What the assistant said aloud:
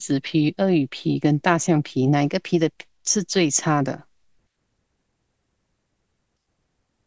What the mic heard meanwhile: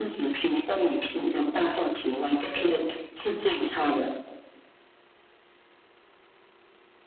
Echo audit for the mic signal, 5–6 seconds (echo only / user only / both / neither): neither